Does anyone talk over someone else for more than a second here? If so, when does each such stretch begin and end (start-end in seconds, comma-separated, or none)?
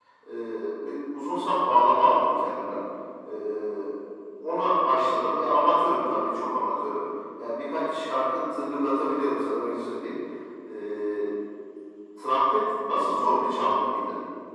none